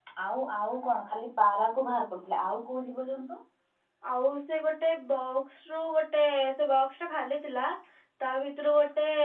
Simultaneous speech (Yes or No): No